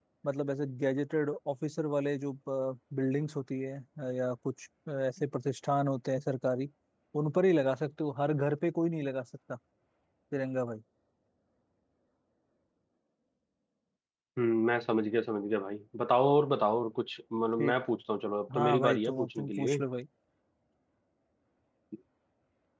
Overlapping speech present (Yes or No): Yes